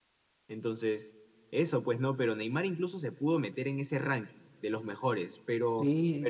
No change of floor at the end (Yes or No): No